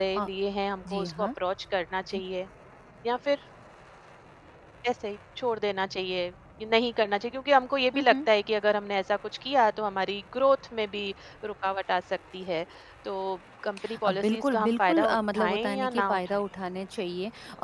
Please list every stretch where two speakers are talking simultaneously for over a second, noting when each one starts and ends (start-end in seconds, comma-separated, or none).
14.0-16.4